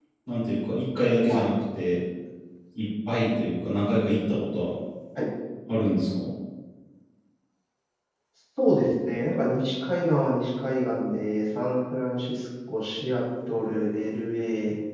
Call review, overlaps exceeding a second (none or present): none